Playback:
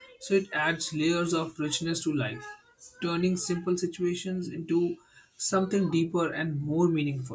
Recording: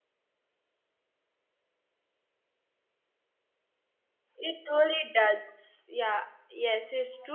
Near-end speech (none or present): present